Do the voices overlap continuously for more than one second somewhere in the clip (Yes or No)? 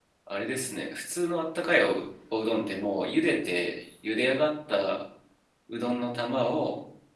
No